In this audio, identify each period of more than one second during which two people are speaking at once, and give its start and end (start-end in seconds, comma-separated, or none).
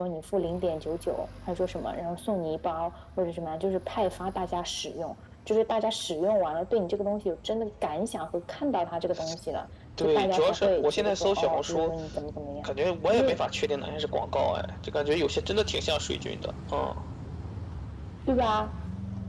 10.0-11.9